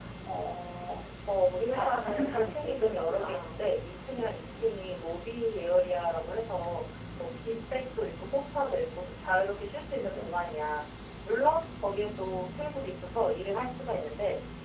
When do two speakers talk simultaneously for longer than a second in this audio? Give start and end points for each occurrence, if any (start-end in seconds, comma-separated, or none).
1.7-3.6